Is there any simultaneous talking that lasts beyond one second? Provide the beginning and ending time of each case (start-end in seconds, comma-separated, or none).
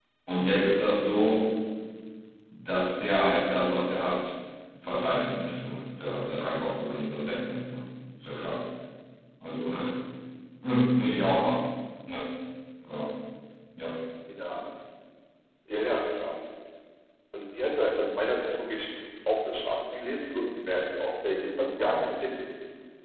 none